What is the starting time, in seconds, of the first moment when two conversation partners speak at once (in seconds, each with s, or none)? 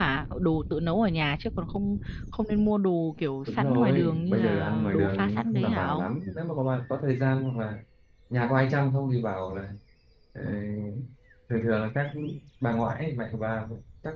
3.5 s